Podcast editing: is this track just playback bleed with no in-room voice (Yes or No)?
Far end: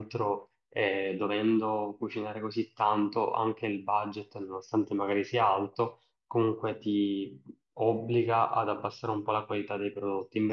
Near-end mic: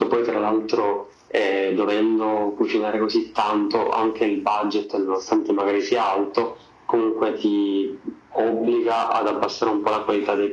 Yes